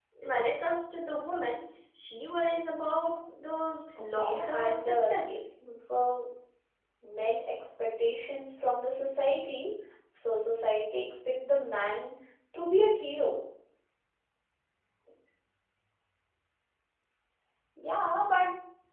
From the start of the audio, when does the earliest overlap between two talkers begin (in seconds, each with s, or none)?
4.2 s